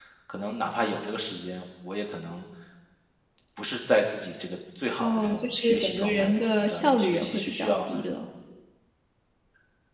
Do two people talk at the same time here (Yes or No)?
Yes